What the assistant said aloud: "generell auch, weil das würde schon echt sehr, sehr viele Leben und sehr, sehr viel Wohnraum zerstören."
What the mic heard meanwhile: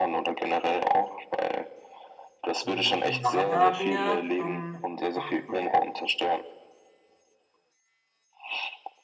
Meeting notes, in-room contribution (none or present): present